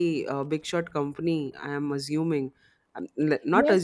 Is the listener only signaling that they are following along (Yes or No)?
No